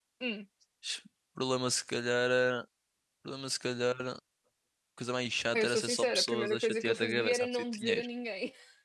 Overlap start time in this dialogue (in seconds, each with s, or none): 5.5 s